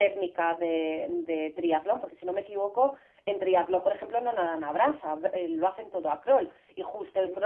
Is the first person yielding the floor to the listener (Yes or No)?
No